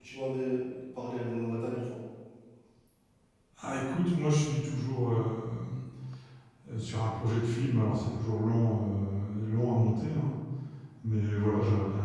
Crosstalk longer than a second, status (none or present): none